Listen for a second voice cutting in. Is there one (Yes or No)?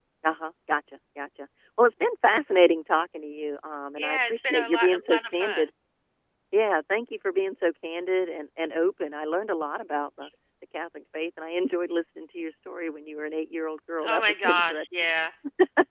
Yes